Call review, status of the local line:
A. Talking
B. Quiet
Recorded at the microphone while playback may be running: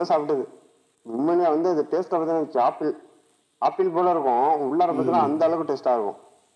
A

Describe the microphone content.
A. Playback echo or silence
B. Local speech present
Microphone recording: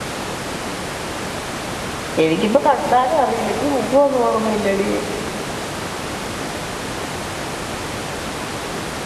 B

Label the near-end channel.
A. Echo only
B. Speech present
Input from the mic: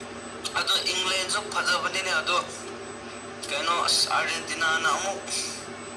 A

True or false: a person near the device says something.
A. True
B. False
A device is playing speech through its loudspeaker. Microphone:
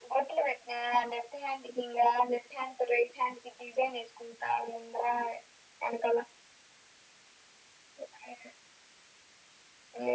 B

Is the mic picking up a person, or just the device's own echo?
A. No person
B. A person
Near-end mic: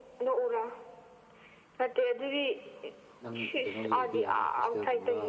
B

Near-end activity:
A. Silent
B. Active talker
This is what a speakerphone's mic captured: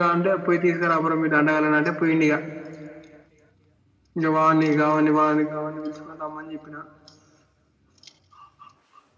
A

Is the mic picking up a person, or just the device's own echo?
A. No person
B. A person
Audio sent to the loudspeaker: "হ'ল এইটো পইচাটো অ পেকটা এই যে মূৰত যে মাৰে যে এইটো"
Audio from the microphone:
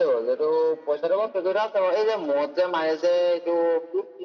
A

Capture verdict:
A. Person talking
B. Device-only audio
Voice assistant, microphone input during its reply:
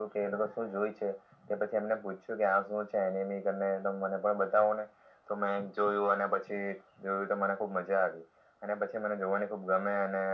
B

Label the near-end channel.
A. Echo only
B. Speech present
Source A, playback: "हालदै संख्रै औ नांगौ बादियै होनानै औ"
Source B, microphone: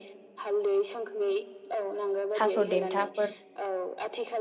B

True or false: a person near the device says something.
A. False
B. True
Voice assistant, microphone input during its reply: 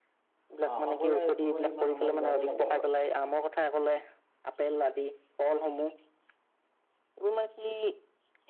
B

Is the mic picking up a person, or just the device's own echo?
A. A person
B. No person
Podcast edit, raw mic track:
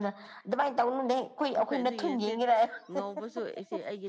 A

